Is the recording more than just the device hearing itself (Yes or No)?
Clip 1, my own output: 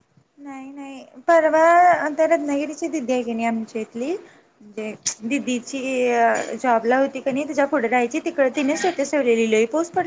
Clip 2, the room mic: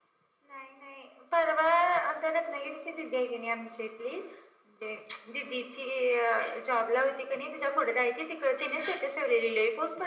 No